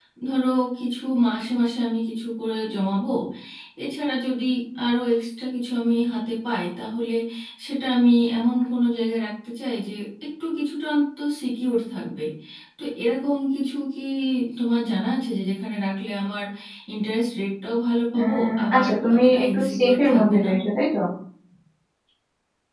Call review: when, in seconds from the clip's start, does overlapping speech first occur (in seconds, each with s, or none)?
18.1 s